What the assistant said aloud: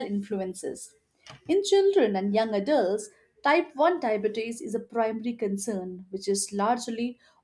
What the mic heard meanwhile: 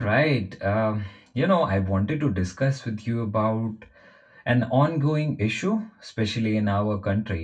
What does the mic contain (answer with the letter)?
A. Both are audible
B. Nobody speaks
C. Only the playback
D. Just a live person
D